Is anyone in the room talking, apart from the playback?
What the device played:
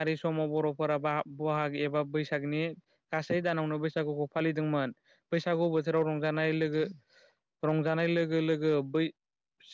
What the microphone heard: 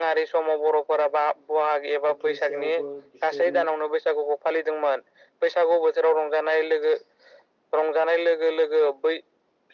Yes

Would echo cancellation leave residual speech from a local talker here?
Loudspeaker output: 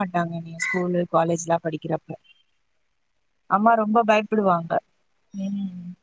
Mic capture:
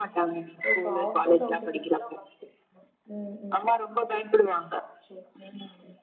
Yes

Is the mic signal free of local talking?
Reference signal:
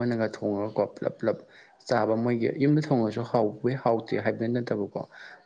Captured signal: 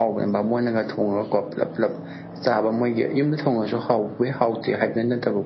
Yes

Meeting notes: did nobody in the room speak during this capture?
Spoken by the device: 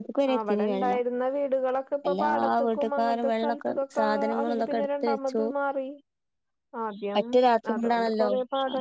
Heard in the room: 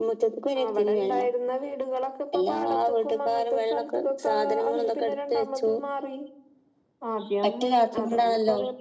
Yes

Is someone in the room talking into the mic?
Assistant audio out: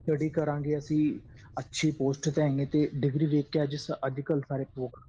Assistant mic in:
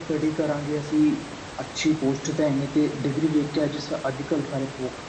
No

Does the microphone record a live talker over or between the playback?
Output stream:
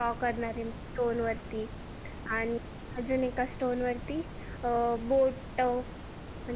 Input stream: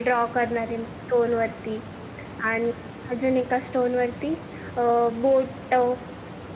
No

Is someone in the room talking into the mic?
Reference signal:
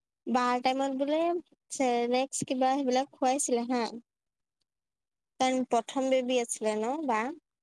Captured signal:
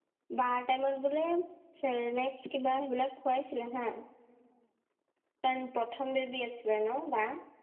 No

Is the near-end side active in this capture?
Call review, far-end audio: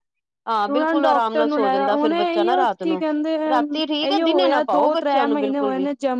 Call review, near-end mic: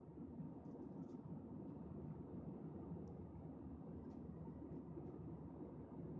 No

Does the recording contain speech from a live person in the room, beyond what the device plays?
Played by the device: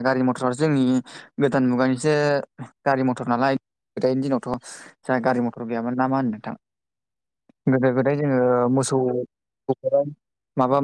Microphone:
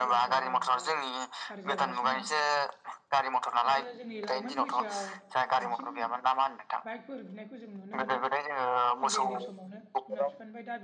Yes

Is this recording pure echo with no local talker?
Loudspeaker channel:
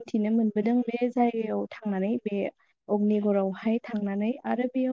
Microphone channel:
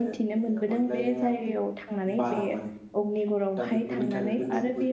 No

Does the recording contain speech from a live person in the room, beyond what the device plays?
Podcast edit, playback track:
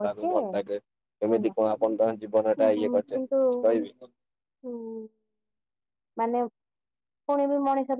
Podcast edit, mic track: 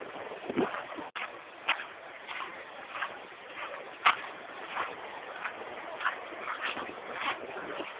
No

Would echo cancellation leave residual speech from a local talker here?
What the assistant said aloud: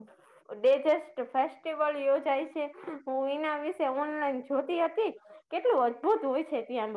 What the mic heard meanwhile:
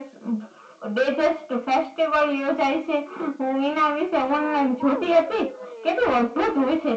Yes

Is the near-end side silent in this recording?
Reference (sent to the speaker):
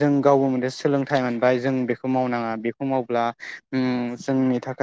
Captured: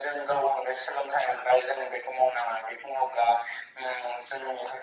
Yes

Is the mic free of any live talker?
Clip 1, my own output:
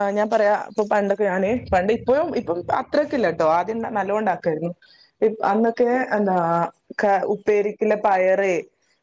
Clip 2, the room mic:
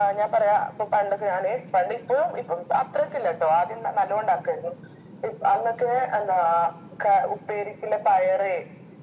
Yes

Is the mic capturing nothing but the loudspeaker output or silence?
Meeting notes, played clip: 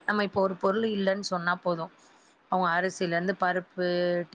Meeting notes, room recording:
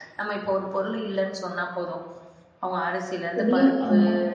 No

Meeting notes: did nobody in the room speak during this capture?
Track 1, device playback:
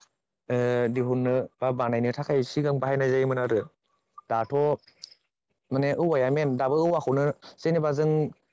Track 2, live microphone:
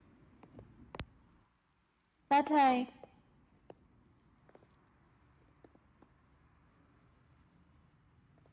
No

